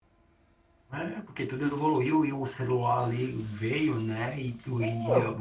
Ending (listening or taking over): listening